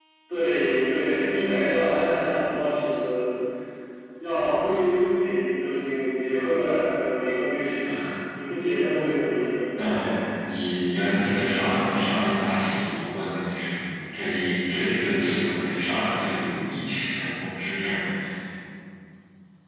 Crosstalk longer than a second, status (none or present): none